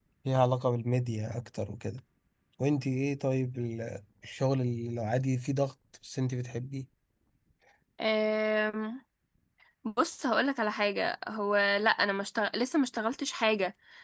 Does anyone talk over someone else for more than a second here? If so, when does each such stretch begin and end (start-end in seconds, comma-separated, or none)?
none